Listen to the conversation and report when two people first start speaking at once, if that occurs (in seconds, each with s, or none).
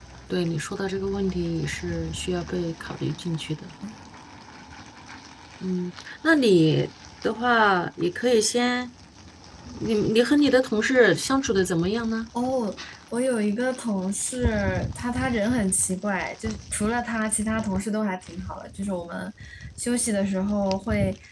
none